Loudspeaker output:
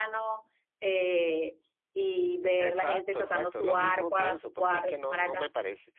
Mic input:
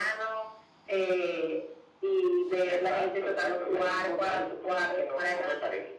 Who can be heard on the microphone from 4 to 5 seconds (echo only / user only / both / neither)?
echo only